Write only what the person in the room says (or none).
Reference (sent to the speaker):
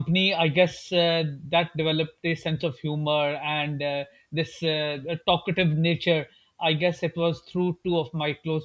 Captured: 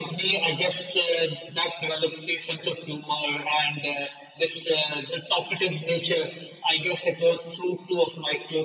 none